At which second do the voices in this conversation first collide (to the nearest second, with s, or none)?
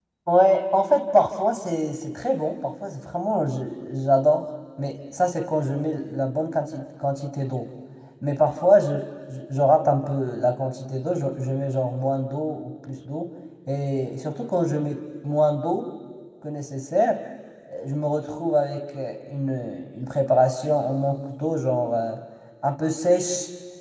none